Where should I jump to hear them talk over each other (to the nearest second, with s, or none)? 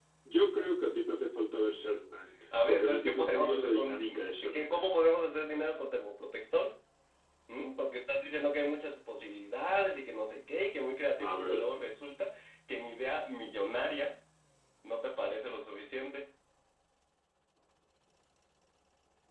3 s